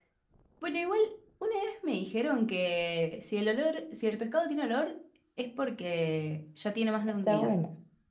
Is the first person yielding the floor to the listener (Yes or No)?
Yes